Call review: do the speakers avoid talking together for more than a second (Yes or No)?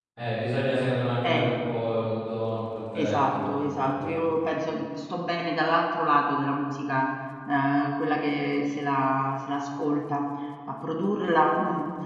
No